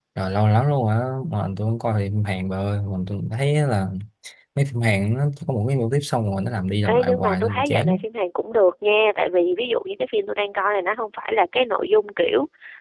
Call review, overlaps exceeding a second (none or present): present